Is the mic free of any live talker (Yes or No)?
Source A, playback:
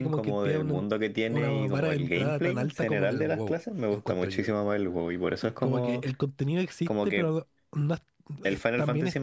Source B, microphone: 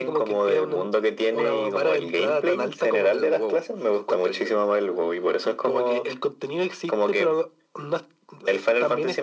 Yes